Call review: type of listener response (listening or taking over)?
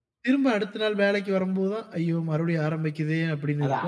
taking over